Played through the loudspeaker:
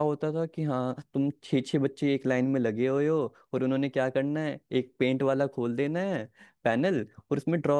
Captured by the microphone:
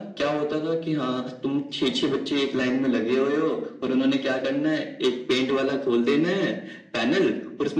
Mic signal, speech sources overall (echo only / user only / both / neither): echo only